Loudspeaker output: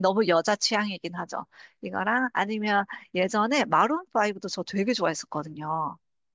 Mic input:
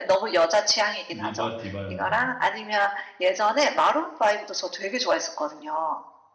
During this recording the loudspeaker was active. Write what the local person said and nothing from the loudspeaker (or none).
리바 디바였나?